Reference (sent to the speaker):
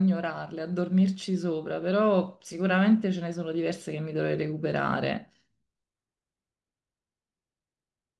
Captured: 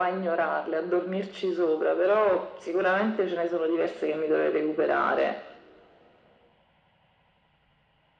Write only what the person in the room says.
none

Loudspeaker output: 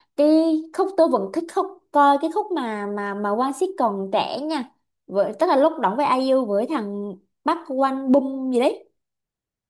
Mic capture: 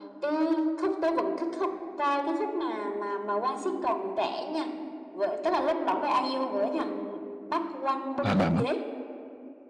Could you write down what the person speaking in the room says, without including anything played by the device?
à bà mất

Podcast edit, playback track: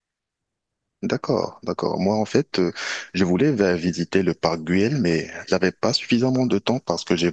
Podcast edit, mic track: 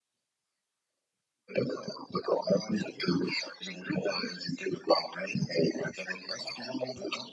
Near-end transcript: none

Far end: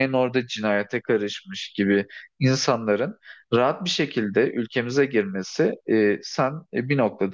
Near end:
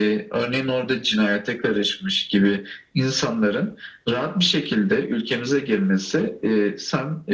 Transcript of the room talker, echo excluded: none

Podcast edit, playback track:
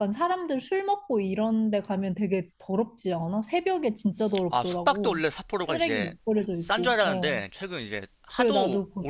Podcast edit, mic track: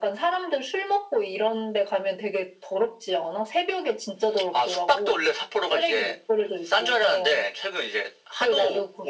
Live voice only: none

